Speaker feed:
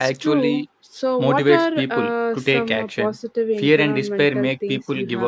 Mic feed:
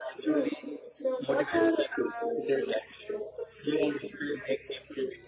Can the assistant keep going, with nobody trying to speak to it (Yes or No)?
Yes